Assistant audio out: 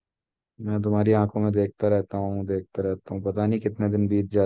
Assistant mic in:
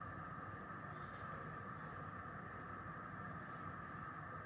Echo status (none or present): none